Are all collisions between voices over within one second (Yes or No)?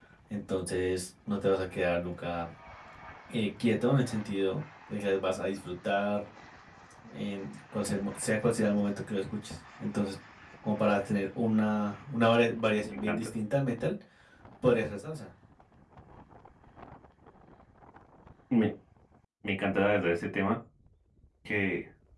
Yes